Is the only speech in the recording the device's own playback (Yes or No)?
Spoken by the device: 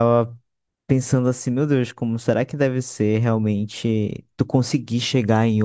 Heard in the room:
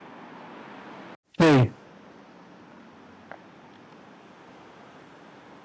No